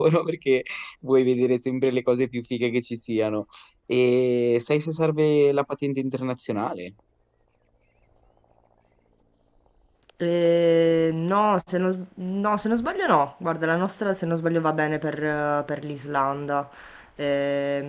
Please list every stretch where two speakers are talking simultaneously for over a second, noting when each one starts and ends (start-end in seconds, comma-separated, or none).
none